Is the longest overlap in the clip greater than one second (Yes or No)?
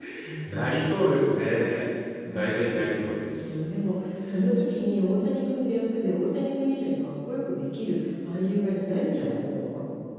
Yes